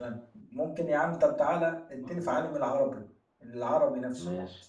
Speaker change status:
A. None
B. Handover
B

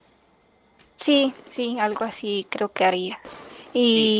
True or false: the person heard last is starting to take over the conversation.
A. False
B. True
A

